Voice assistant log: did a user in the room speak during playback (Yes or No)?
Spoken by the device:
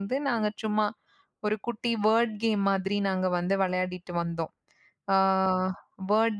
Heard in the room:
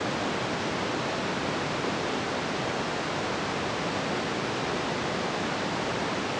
No